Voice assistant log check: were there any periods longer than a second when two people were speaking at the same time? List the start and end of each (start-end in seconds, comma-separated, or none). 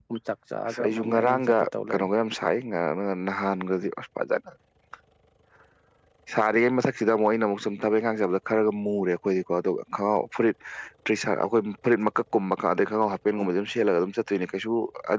0.7-2.1